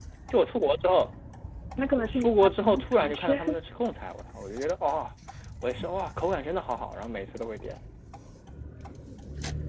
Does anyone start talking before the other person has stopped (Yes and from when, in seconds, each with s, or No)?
Yes, from 2.0 s